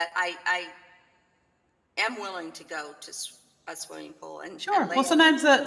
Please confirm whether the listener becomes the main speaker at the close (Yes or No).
Yes